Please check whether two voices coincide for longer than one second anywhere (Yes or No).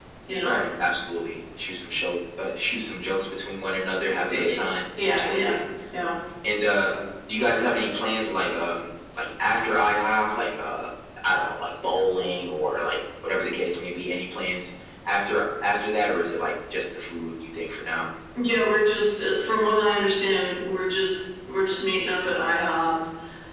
No